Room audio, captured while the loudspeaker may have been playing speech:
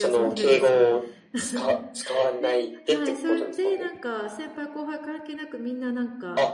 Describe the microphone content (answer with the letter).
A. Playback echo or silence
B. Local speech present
B